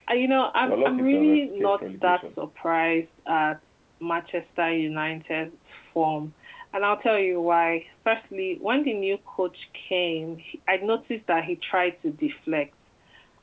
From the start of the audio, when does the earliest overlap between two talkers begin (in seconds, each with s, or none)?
0.7 s